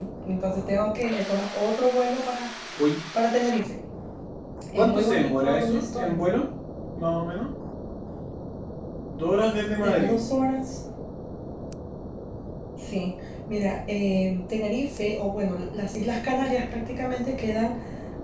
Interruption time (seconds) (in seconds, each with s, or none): 4.8 s